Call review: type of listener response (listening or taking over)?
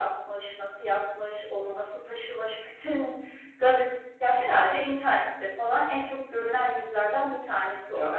taking over